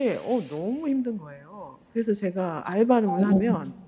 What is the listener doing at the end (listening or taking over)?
listening